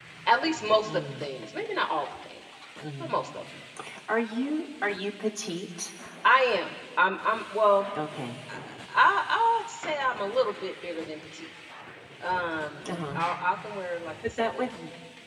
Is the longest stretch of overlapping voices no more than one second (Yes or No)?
Yes